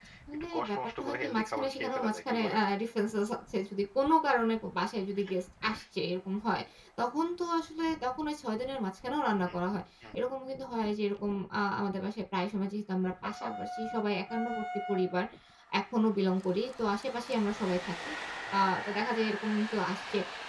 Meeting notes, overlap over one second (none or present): present